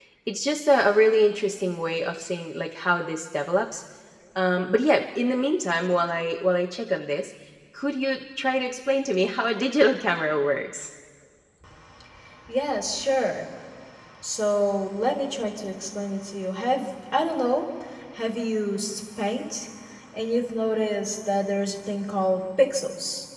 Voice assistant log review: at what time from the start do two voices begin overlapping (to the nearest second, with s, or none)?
none